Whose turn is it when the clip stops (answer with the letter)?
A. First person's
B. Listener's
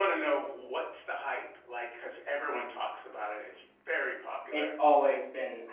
B